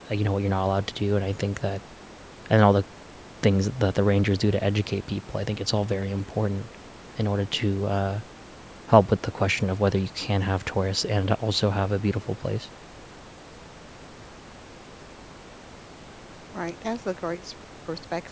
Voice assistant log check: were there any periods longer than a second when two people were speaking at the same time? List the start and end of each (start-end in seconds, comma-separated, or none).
none